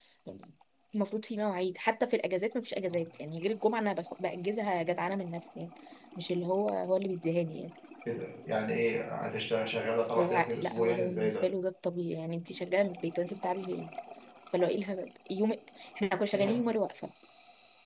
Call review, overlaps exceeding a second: present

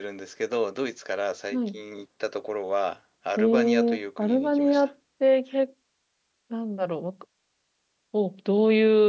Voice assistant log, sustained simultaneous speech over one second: present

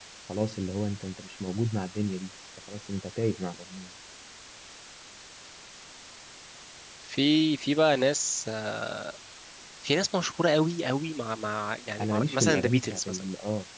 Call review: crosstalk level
present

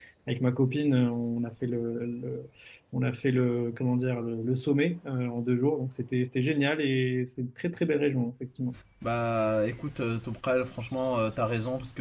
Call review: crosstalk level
none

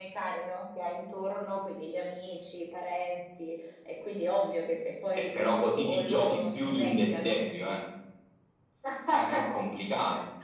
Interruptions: present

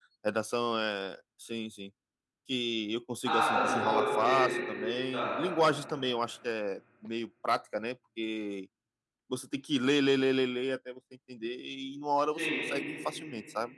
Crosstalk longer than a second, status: present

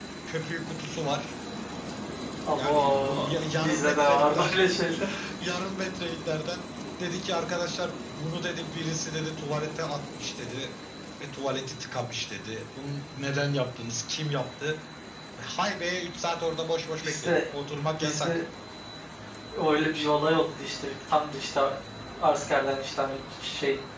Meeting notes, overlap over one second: present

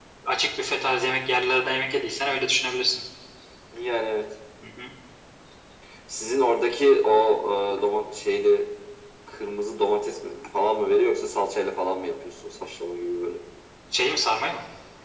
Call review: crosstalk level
none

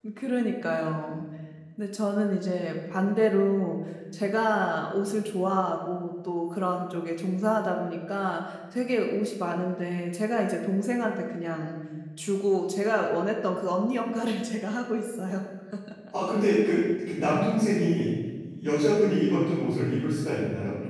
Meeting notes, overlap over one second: none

